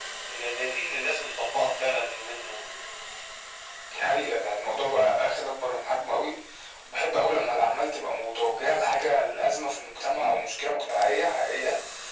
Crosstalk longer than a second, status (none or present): none